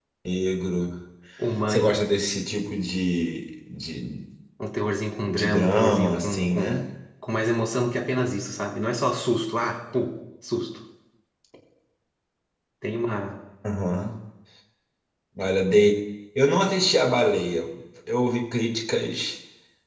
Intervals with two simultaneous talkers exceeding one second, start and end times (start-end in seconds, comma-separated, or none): 5.3-6.9